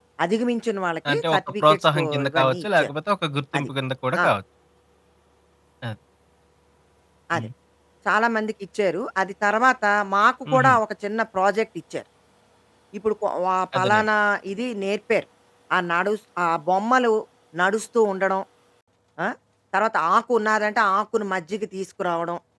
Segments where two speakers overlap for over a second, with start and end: 1.1-2.9

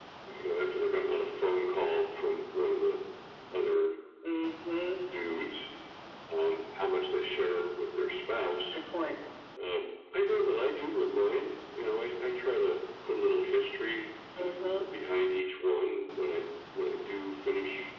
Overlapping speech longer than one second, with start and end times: none

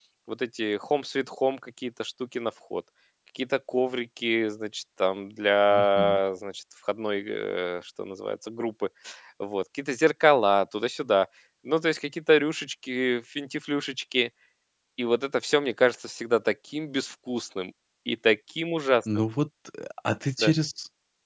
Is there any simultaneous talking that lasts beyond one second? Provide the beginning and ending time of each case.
none

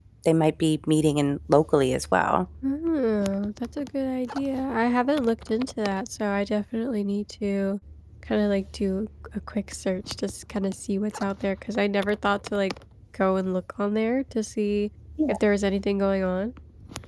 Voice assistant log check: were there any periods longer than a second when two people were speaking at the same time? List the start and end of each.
none

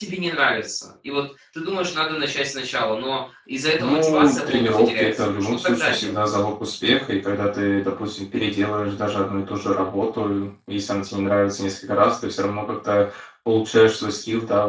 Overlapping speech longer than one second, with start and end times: 3.8-6.2

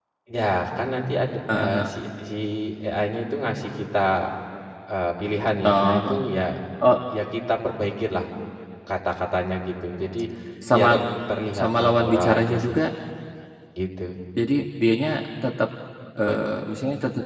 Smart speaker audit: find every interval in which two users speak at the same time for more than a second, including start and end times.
11.6-12.8

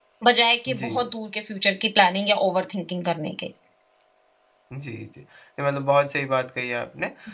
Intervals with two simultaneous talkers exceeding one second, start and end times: none

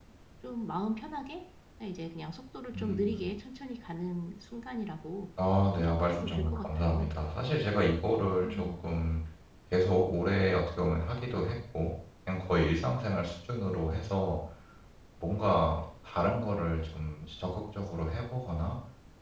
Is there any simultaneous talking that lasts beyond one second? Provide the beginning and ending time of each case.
5.8-7.2

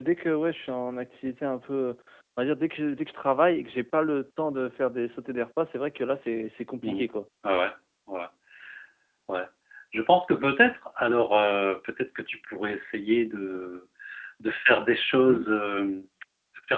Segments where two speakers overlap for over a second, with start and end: none

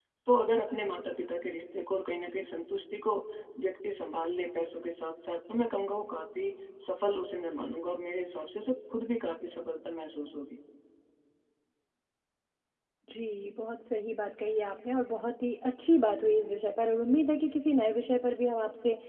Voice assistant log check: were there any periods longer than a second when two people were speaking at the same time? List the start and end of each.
none

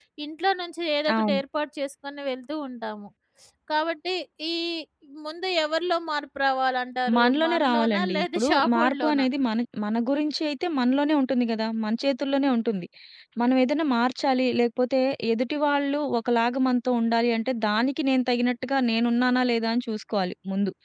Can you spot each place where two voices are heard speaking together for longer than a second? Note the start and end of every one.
7.2-9.3

